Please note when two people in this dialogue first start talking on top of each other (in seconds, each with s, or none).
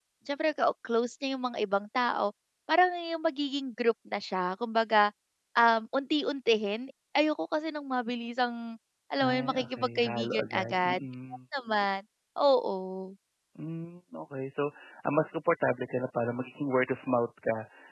9.2 s